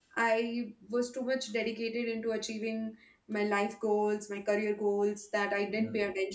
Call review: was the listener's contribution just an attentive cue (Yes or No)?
Yes